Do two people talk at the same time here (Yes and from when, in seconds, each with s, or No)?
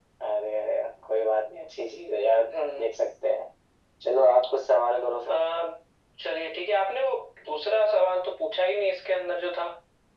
No